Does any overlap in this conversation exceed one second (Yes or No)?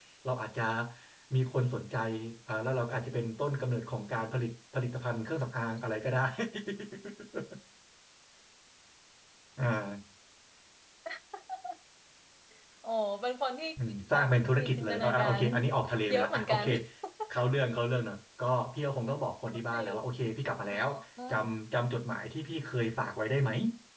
Yes